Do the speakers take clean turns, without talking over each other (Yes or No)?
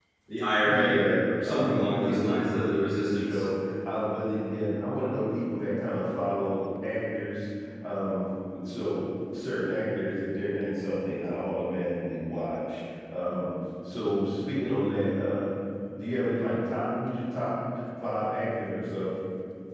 No